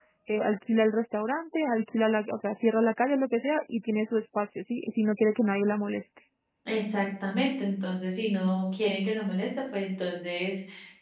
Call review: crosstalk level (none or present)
none